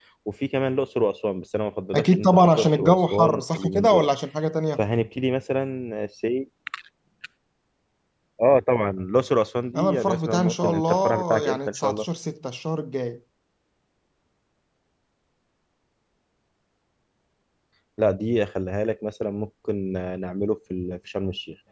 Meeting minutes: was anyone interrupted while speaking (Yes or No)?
Yes